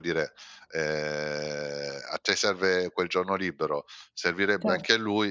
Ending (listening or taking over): listening